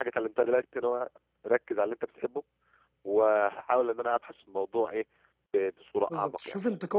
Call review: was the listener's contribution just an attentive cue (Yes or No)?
No